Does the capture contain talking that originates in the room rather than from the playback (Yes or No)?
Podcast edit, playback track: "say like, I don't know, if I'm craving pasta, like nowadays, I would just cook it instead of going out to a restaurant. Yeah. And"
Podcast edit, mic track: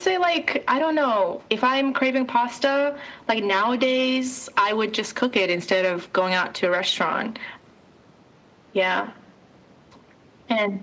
No